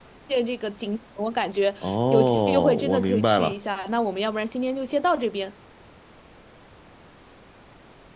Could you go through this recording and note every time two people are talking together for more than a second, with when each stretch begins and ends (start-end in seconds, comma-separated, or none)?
1.8-3.5